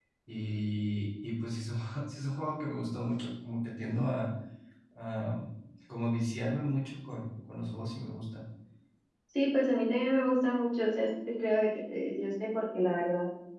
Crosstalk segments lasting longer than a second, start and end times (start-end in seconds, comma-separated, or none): none